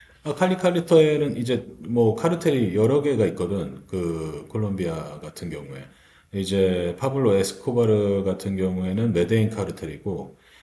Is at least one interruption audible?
No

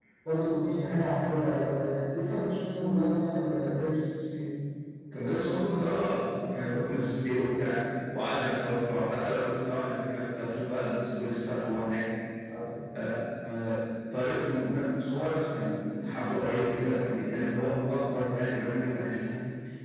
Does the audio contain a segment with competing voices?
No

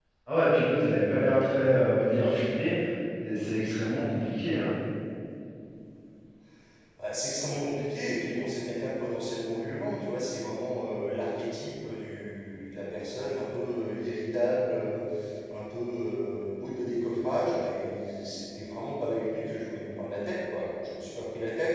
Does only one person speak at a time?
Yes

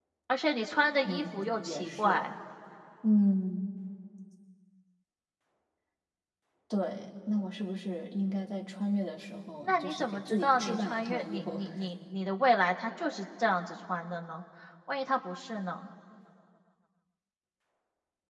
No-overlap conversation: No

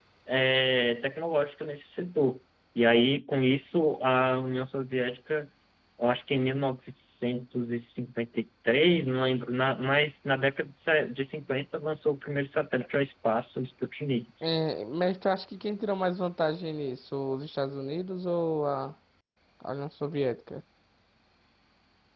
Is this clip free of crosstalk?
Yes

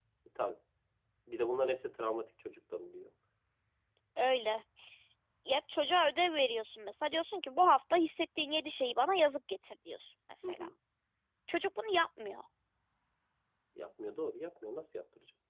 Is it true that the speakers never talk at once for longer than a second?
Yes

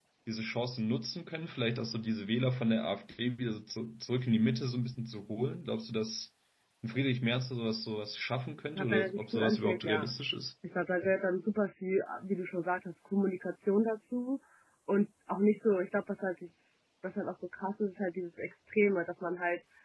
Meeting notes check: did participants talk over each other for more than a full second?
Yes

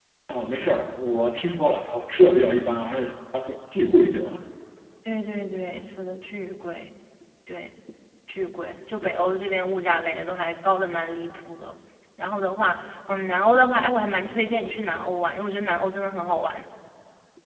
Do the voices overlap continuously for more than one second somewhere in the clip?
No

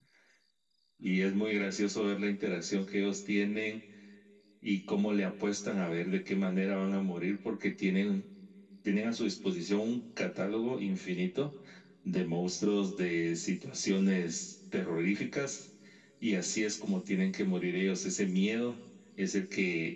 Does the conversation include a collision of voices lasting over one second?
No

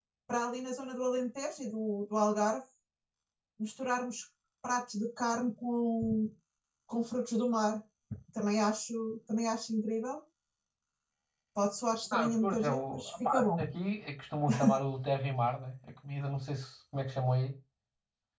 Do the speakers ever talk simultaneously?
Yes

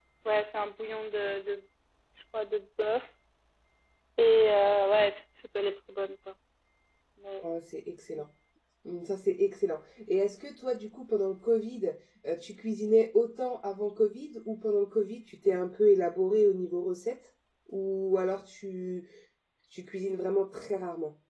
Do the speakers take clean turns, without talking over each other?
Yes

